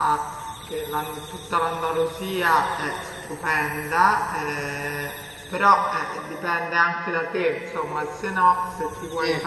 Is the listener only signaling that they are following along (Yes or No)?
Yes